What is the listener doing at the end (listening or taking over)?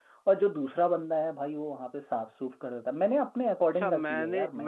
taking over